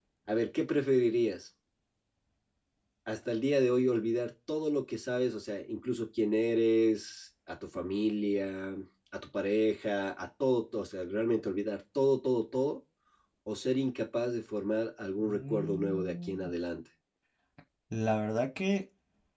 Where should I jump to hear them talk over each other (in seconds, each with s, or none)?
15.2 s